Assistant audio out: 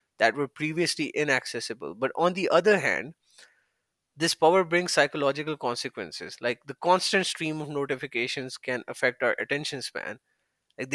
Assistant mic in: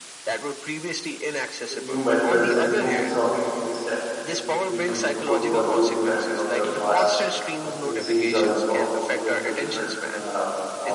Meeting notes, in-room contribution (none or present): present